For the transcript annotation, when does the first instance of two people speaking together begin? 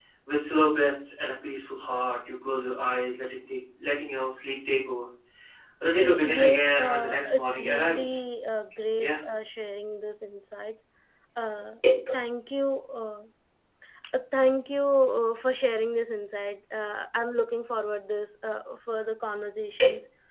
6.0 s

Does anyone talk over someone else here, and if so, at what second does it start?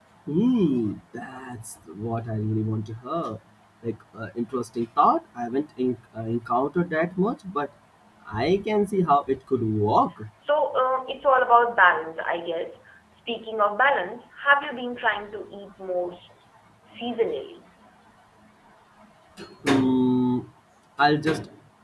none

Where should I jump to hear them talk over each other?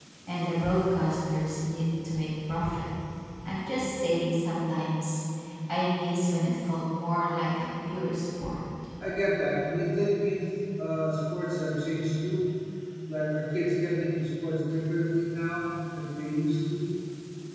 none

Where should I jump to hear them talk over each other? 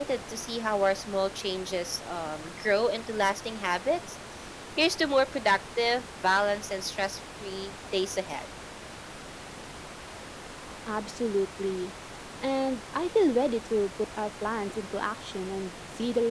none

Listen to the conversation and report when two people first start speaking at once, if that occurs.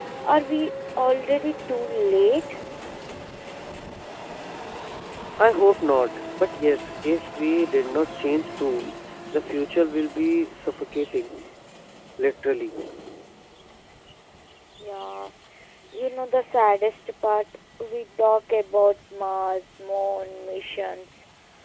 none

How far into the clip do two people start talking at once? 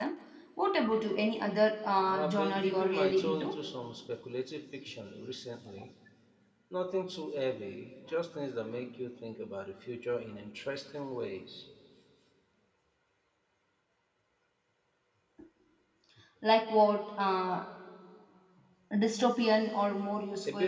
2.0 s

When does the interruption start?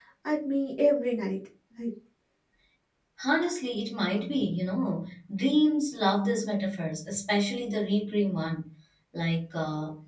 none

